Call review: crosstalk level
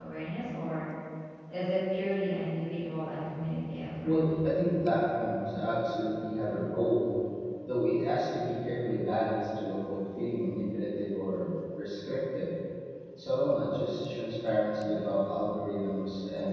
none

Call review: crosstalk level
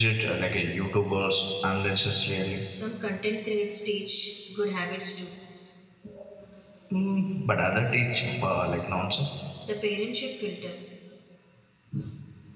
none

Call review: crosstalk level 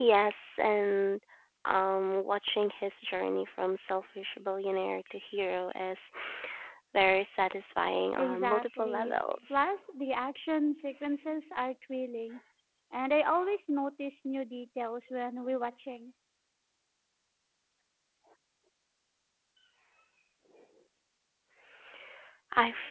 present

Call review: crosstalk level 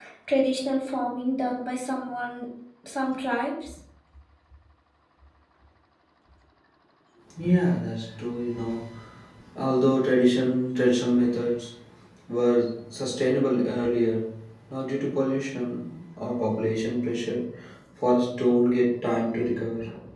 none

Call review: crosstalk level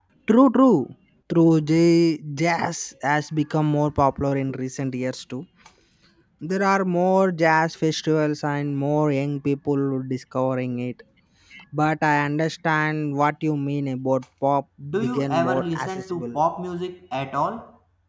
present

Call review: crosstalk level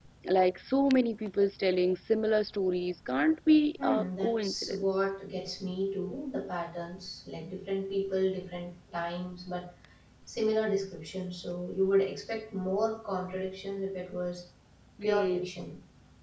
present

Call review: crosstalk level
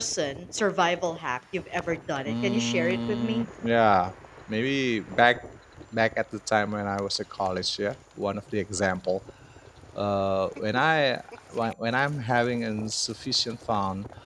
present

